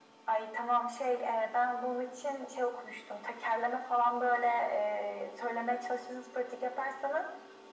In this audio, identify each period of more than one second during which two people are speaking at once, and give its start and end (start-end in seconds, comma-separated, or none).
none